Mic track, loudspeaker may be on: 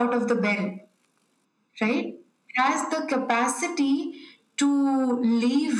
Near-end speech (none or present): none